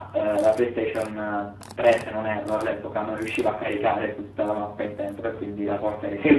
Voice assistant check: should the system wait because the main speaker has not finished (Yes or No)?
No